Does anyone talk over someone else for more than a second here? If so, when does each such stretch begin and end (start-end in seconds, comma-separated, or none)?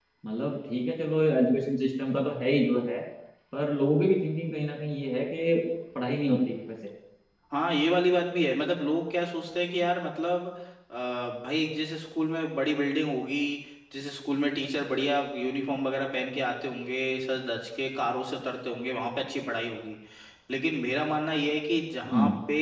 none